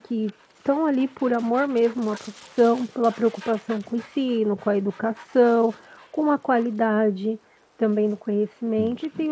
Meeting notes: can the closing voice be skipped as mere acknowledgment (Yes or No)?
Yes